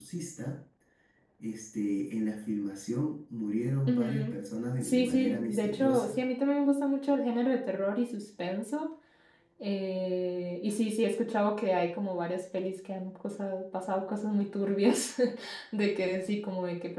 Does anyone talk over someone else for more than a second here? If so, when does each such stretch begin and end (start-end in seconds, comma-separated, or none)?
4.8-6.2